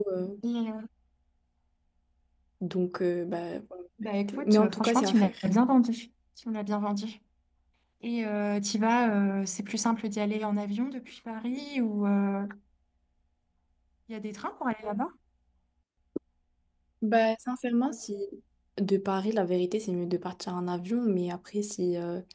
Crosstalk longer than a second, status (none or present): present